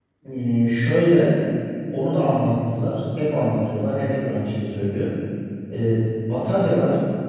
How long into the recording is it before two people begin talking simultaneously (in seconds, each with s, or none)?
none